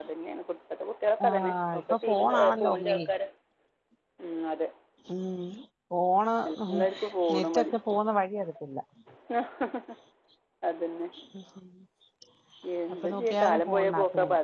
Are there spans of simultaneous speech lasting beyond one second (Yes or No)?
Yes